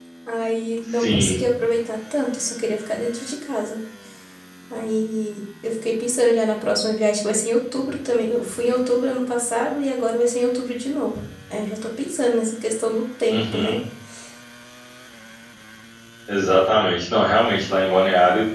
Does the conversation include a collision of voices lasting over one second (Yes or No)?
No